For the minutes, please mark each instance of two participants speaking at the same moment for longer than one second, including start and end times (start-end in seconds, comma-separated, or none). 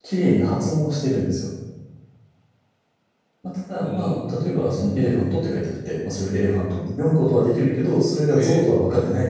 3.8-5.3